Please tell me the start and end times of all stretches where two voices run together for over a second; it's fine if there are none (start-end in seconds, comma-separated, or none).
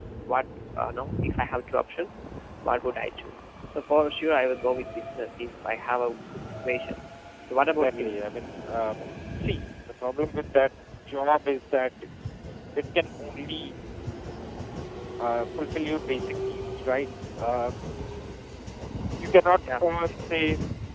none